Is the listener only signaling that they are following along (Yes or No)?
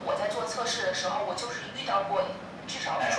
Yes